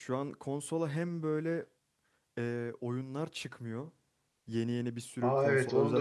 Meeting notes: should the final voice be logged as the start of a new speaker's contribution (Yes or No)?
Yes